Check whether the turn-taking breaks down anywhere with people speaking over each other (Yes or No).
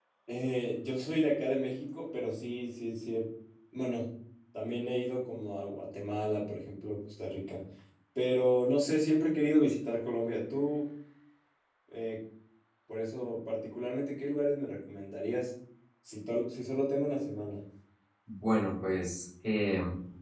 No